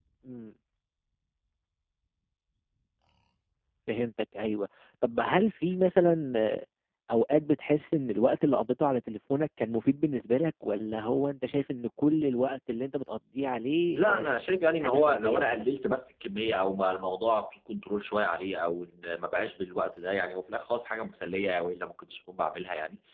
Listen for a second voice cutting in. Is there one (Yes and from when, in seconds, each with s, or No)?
Yes, from 14.0 s